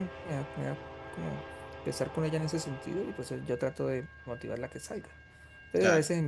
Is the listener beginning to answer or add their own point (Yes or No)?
No